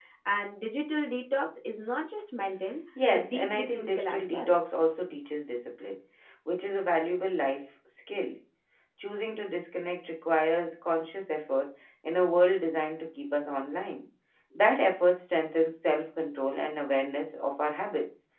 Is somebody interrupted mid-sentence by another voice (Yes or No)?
Yes